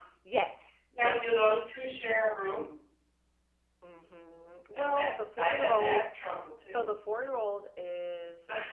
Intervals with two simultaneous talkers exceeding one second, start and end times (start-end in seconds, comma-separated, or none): 4.7-6.0